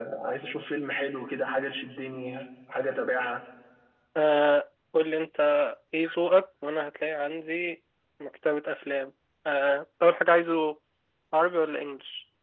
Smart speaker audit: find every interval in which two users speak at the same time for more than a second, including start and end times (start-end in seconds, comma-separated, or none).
none